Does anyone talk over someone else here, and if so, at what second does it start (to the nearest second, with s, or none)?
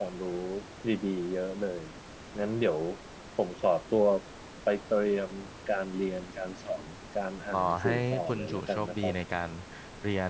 8 s